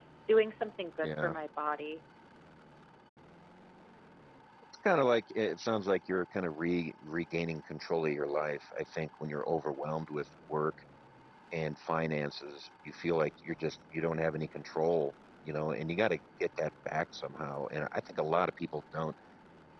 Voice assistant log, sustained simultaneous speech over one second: none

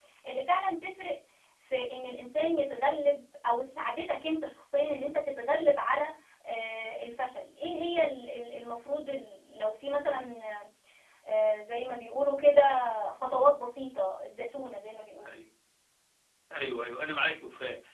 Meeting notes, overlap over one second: none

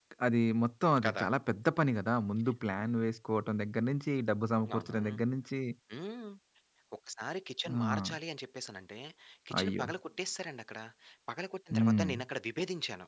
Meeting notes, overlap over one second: none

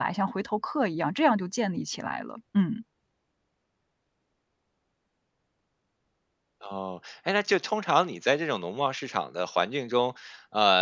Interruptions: none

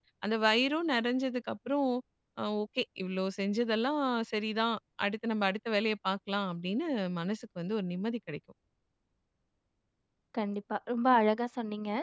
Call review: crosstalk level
none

